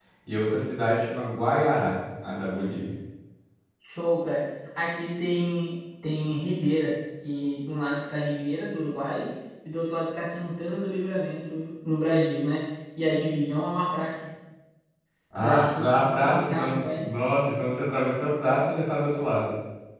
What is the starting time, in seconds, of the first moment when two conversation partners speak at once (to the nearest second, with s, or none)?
15 s